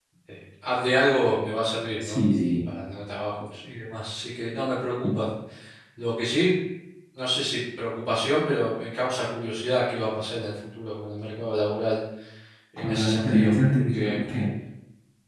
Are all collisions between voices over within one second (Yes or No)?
No